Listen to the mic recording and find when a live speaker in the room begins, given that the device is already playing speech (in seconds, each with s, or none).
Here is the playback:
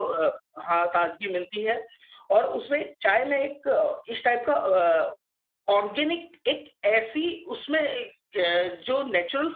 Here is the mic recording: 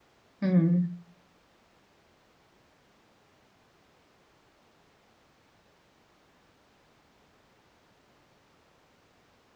0.4 s